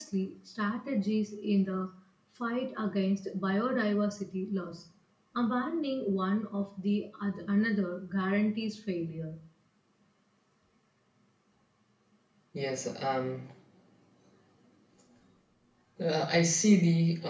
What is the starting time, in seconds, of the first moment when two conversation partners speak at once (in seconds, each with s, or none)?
none